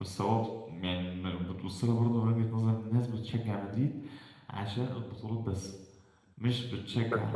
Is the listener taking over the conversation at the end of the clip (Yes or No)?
No